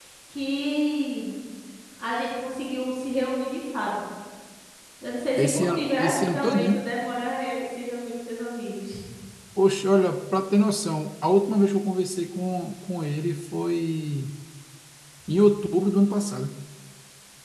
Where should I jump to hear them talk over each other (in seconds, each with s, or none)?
5.4 s